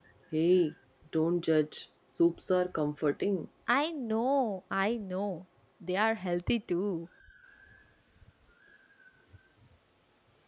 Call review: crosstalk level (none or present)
none